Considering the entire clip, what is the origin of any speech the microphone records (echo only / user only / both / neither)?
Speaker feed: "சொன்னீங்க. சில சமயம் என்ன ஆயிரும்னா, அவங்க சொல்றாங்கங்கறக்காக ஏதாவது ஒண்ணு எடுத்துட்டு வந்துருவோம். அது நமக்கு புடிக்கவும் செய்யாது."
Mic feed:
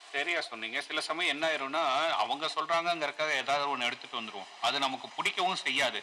echo only